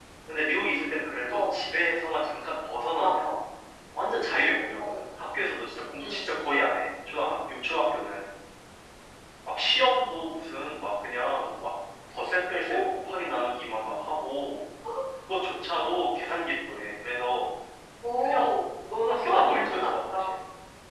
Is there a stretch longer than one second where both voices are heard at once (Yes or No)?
Yes